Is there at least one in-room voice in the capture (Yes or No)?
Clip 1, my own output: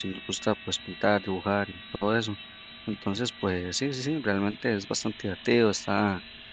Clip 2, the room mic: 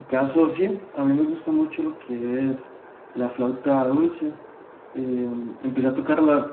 Yes